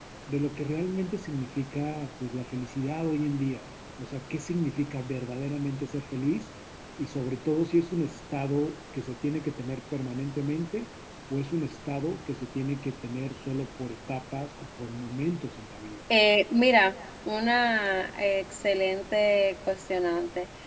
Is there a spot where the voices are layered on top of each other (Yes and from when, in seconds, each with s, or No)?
No